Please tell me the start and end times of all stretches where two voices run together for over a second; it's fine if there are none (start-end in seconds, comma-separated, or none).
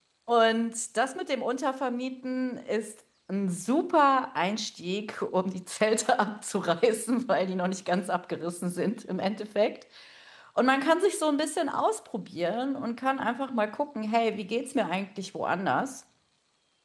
none